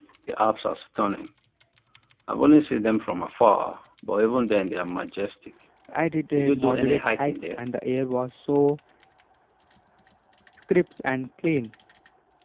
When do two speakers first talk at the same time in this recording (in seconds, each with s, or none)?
6.4 s